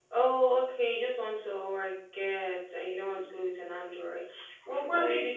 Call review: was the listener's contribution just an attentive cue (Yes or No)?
Yes